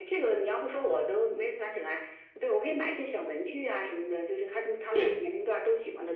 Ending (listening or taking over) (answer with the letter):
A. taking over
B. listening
B